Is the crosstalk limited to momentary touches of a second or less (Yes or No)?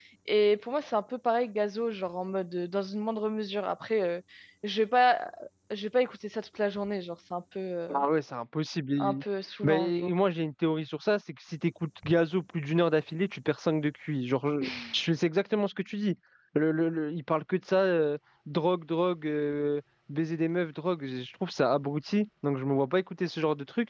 Yes